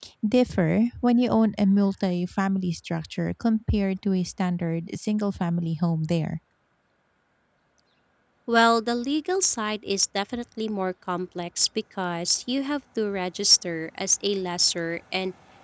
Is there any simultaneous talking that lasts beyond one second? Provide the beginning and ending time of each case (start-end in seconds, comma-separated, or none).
none